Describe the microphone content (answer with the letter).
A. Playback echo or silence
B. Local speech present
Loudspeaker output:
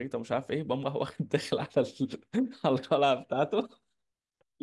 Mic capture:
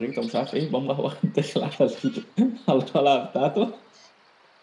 A